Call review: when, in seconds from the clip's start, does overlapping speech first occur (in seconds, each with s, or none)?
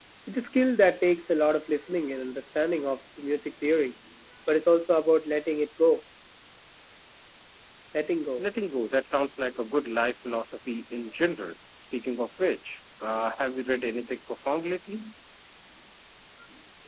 none